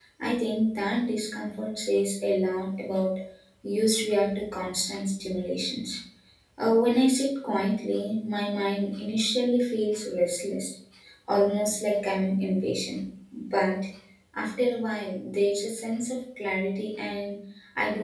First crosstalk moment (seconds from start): none

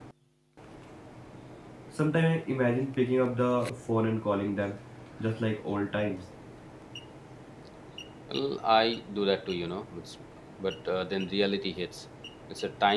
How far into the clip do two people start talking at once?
none

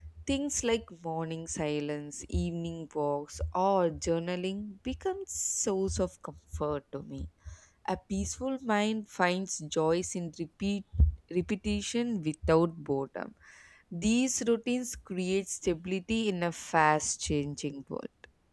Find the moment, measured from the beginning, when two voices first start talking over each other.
none

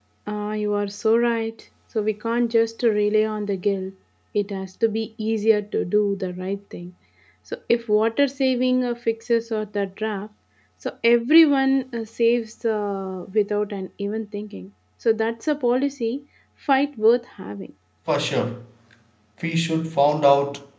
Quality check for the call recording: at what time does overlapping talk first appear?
none

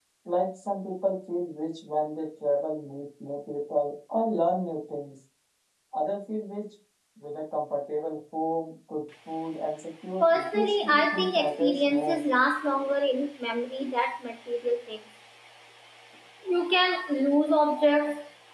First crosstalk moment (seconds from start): 10.2 s

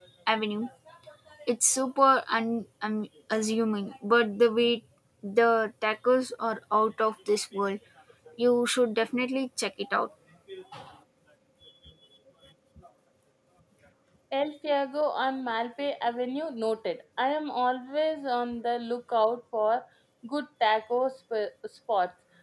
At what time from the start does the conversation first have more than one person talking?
none

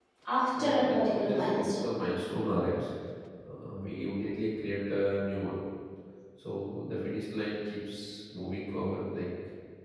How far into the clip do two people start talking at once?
0.6 s

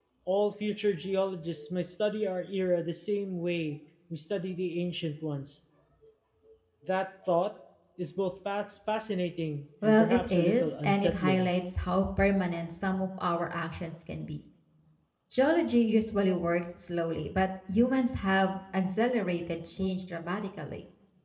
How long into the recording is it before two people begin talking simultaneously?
9.8 s

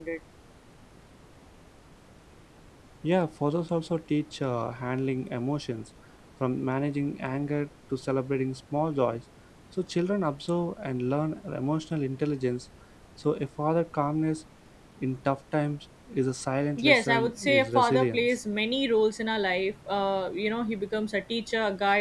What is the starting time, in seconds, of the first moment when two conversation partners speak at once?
16.8 s

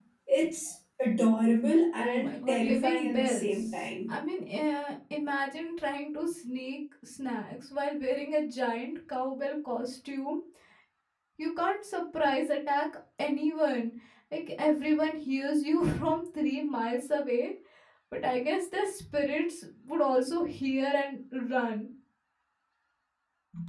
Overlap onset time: 2.0 s

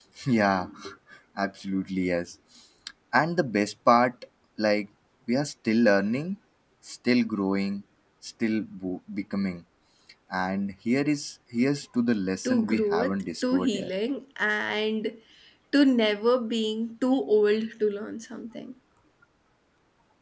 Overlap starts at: 12.4 s

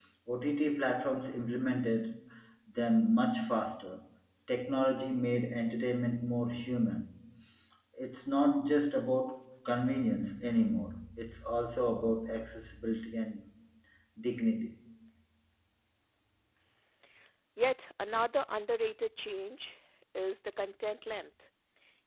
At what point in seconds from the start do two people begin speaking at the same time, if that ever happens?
none

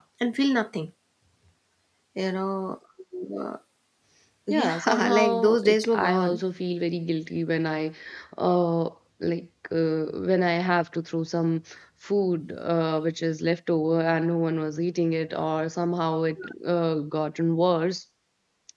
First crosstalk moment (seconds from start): 4.5 s

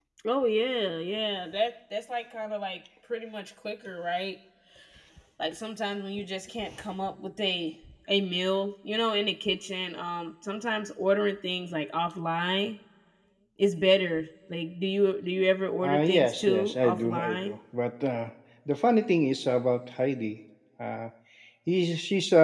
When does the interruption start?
15.8 s

